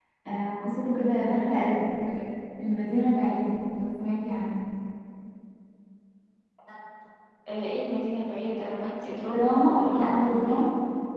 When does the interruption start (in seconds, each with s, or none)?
9.3 s